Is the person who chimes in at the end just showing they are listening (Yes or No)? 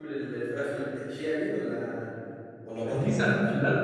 No